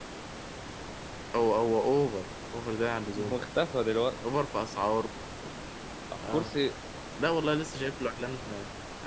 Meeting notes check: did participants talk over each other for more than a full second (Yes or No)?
No